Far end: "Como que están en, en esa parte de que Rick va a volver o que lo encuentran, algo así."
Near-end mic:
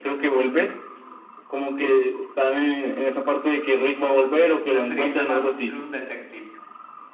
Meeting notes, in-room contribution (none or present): present